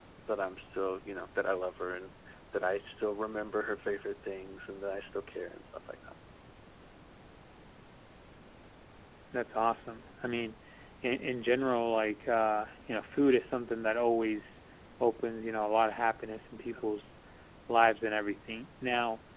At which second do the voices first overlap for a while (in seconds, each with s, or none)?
none